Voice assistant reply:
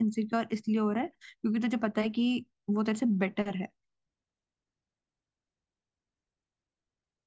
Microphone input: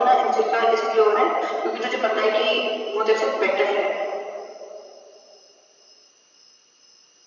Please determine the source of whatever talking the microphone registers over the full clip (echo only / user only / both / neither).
echo only